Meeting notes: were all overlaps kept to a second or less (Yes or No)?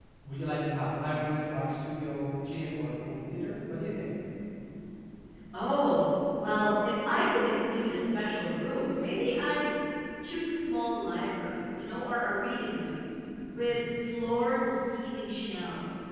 Yes